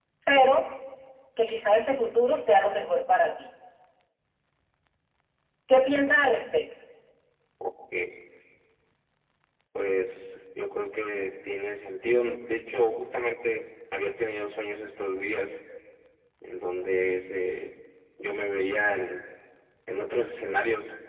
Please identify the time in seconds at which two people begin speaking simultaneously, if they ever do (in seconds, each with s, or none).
none